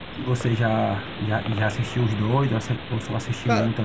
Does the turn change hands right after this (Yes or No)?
Yes